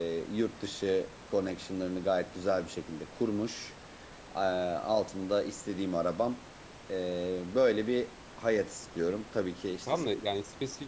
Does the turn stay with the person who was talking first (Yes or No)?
No